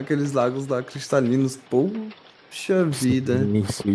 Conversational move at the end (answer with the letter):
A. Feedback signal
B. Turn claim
B